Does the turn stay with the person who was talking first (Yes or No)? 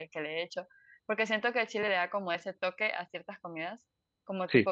Yes